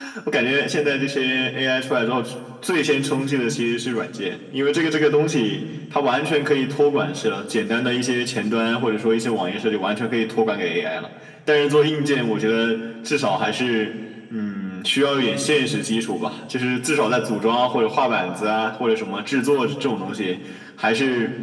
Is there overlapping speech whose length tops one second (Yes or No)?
No